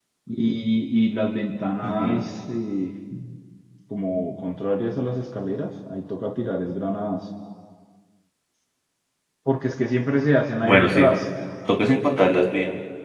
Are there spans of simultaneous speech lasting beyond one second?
No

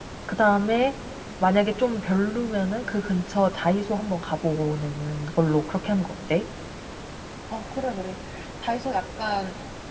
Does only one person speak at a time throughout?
Yes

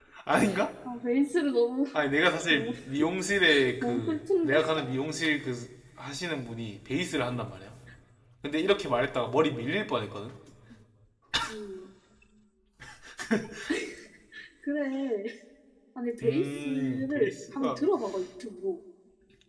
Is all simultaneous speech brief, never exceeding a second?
No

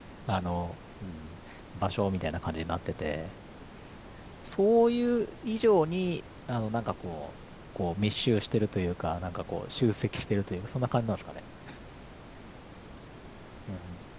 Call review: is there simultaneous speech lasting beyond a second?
No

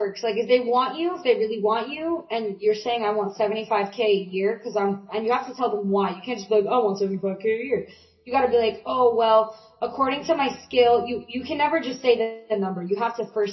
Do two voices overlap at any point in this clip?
No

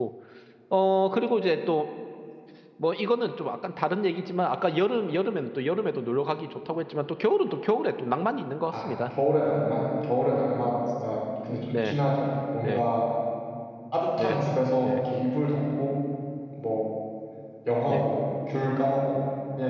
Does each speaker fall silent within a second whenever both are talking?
Yes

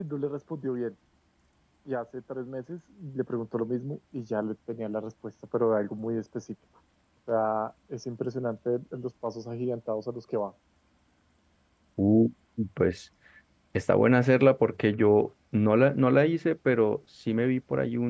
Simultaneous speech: No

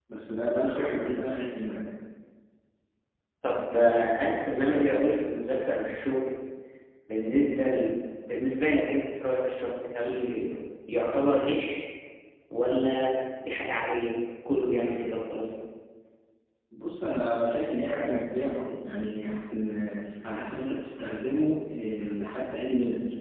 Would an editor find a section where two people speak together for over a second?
No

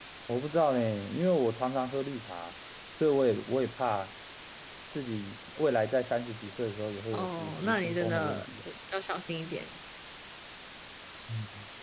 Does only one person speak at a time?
No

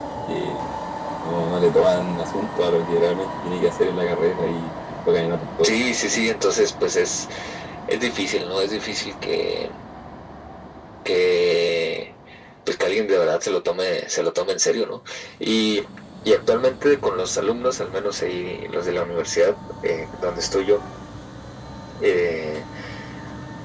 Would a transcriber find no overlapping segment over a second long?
Yes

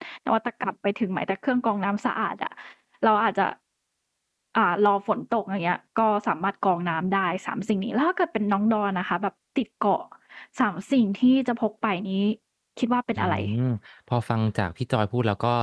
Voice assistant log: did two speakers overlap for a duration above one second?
No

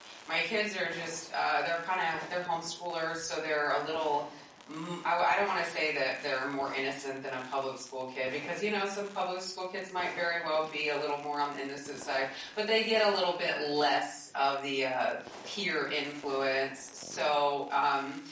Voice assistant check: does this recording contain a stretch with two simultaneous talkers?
No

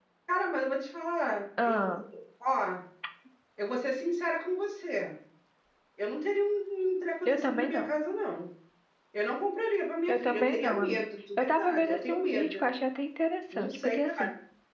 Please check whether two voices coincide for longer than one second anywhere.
Yes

